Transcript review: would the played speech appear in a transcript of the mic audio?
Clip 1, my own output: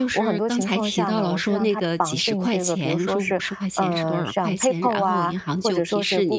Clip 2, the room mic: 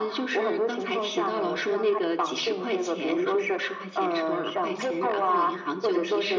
Yes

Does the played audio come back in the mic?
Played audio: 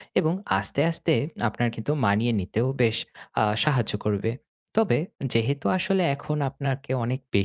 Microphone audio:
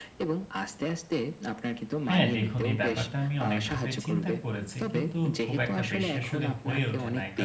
Yes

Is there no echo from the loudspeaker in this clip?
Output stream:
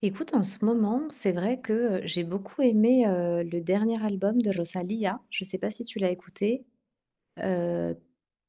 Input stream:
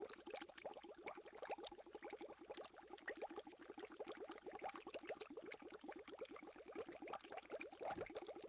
Yes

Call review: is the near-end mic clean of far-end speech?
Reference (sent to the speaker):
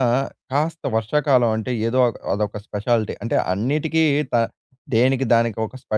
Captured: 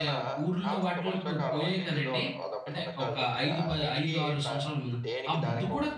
No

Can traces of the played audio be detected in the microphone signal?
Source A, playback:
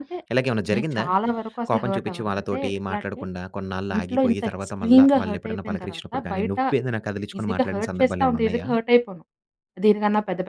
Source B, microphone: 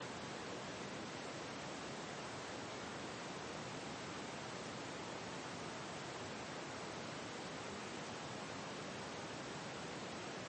No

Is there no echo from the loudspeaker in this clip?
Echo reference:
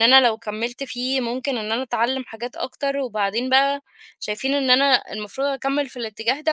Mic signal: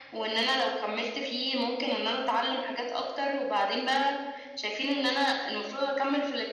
No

